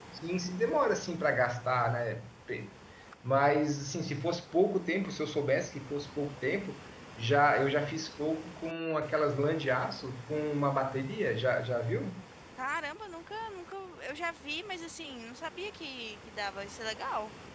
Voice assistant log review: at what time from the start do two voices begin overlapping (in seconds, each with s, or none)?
none